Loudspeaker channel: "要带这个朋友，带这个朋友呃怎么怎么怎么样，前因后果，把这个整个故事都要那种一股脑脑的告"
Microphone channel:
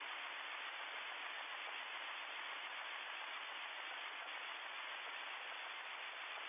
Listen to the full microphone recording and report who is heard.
neither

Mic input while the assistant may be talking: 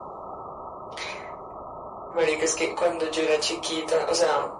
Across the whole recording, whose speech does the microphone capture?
echo only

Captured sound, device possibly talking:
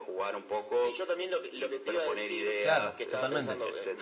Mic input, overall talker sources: both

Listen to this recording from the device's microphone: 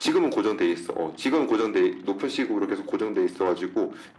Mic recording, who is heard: echo only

